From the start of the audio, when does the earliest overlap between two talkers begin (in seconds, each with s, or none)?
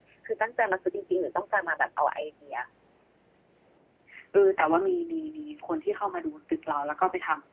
none